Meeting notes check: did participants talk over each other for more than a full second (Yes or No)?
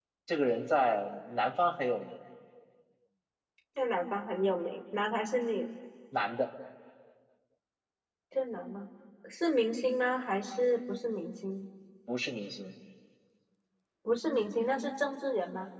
No